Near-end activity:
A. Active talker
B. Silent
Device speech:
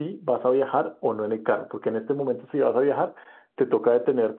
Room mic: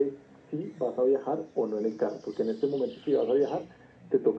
B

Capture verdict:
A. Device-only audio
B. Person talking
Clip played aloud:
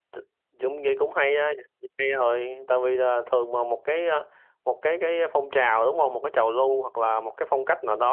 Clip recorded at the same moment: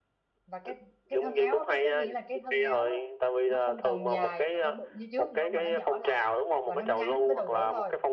B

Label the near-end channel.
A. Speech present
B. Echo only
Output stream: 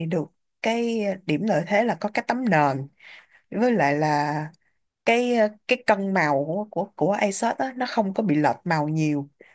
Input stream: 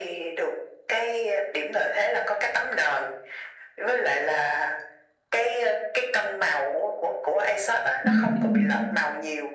A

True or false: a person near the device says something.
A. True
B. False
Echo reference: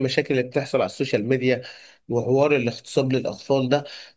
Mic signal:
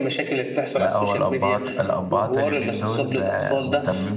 A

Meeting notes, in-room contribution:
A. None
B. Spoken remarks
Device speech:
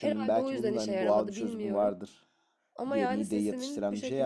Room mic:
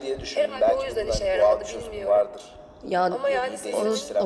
B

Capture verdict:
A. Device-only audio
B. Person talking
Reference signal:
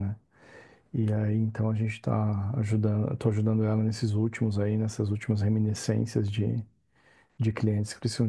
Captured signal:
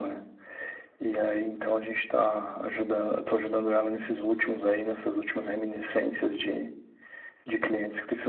A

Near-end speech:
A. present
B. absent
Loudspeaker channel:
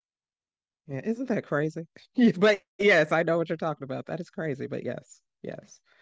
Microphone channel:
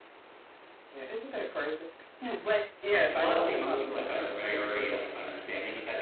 A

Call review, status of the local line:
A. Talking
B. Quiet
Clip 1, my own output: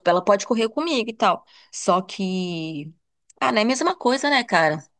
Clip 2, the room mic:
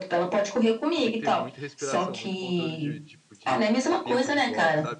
A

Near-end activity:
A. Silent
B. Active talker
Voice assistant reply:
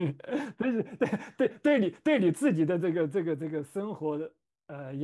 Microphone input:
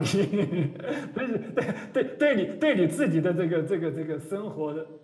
A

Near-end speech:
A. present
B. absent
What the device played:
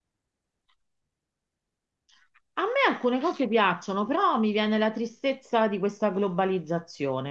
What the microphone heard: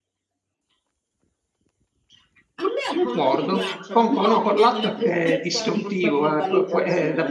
A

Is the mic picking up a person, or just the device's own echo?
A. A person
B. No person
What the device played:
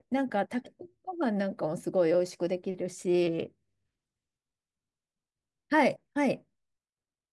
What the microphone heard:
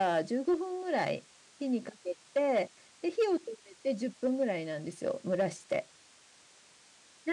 A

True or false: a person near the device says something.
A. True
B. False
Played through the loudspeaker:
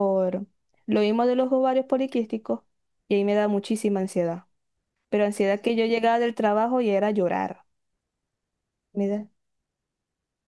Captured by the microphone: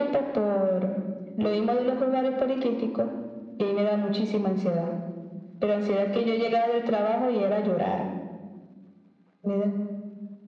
B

